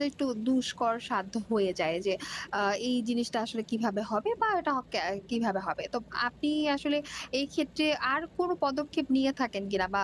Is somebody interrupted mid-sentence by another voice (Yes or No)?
No